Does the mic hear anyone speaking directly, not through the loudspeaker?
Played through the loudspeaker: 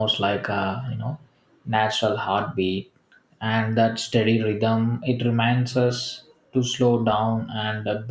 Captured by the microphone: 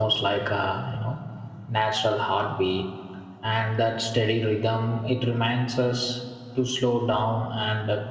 No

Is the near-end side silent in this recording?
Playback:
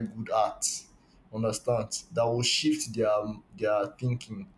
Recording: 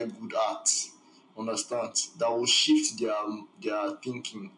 Yes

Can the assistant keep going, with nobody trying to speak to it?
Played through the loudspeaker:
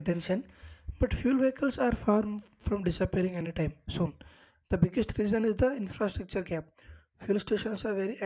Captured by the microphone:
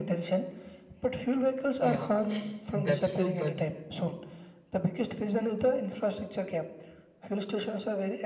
No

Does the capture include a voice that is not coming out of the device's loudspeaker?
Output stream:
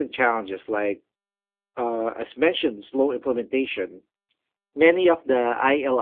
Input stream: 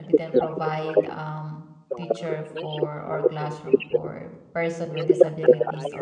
Yes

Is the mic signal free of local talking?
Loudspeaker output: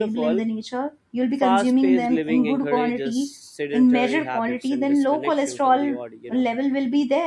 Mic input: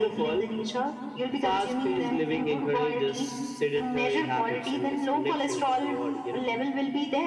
Yes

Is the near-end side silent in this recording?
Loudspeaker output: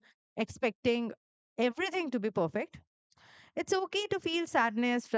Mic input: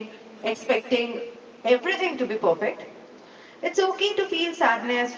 Yes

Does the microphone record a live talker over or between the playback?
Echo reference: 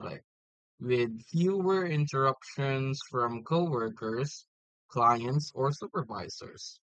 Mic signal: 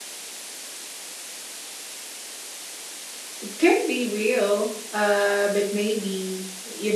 Yes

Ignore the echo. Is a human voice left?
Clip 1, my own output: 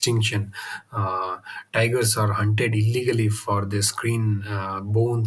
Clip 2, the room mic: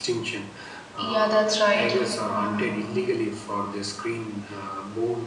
Yes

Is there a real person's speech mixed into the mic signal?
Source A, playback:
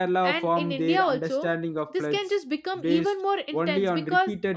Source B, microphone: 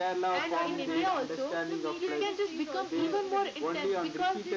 Yes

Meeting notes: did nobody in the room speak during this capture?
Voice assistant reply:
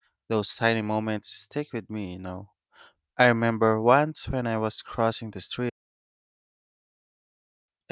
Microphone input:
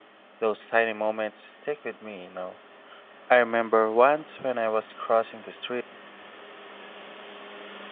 Yes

